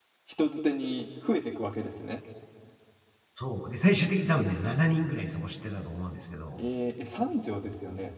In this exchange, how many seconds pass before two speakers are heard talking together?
none

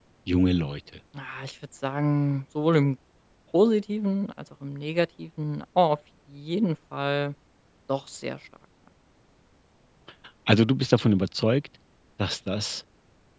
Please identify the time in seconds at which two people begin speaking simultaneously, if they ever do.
none

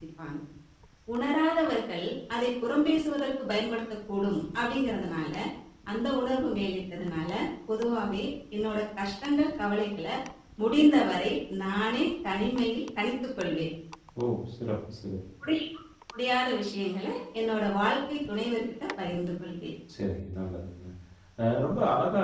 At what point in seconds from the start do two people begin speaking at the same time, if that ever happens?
none

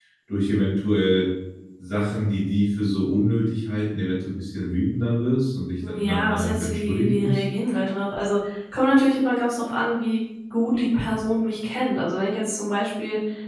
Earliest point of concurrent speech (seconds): 5.8 s

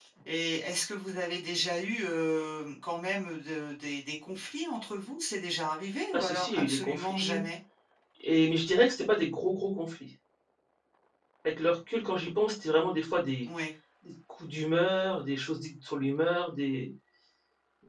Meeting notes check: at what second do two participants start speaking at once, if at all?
6.1 s

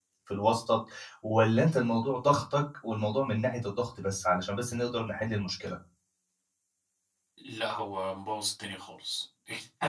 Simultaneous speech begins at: none

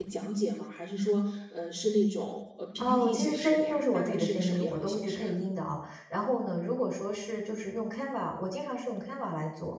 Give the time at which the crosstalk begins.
2.8 s

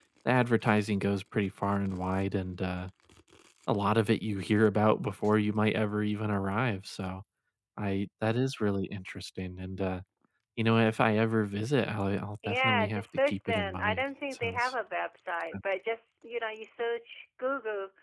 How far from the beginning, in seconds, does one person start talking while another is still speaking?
12.4 s

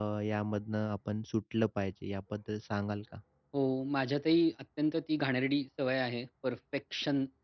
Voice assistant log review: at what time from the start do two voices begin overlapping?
none

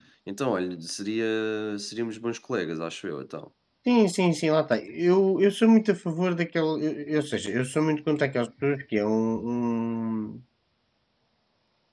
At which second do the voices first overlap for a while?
none

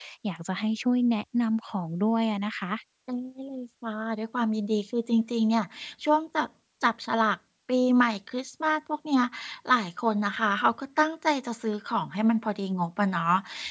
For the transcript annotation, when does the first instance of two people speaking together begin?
none

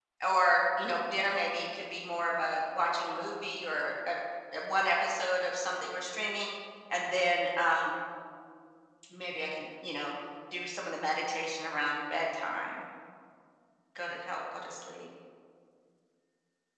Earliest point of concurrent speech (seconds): none

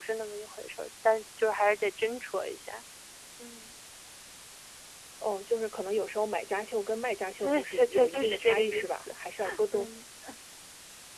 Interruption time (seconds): 7.4 s

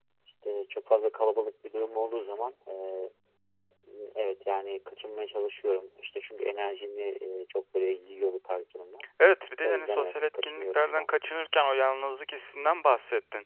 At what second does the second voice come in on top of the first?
9.6 s

